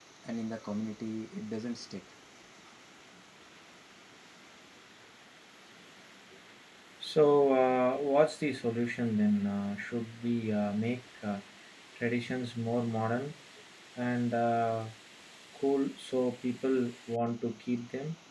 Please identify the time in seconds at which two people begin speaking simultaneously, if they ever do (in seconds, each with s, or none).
none